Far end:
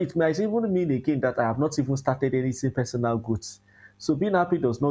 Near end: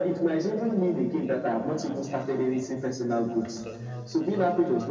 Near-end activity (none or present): present